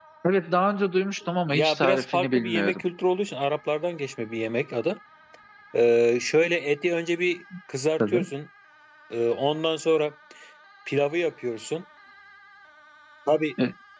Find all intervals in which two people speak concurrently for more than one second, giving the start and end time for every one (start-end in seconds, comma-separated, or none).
1.5-2.8